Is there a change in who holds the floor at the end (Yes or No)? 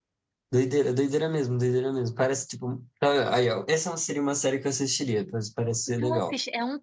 Yes